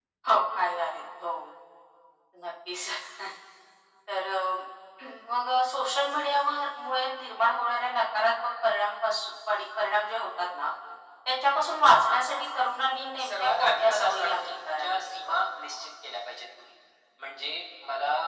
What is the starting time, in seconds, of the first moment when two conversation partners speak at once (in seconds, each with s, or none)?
13.2 s